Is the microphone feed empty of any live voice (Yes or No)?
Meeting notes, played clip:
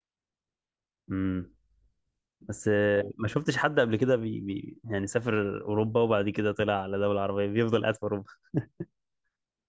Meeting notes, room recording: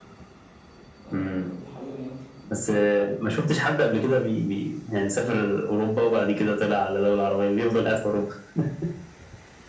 No